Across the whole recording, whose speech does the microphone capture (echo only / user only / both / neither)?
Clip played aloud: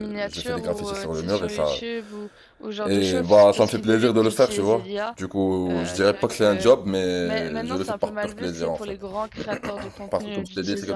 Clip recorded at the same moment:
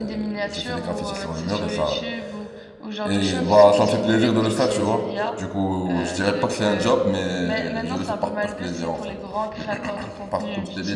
echo only